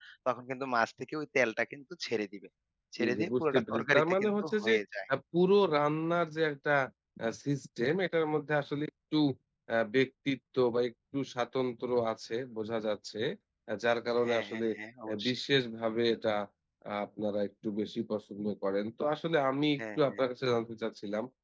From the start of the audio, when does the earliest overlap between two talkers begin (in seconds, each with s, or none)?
3.0 s